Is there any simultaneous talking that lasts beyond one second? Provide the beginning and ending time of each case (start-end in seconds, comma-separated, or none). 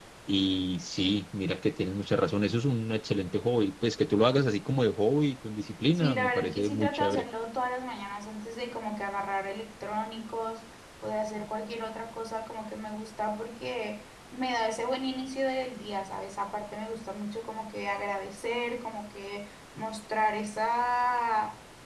6.0-7.3